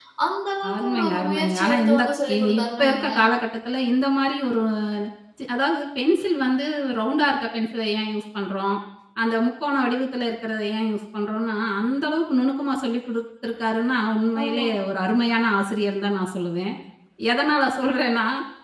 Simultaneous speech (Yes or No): Yes